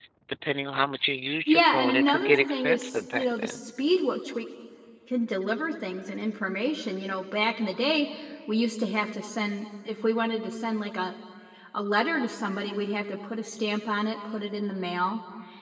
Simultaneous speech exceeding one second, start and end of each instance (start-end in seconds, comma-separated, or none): 1.5-3.6